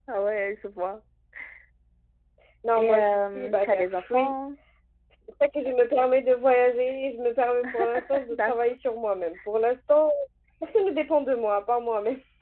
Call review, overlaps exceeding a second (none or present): present